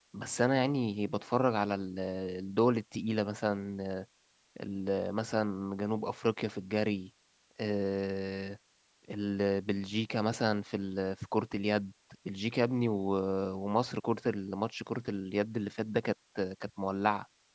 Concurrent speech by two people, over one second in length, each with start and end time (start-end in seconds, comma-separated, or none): none